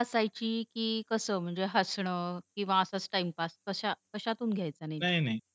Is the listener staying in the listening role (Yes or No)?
No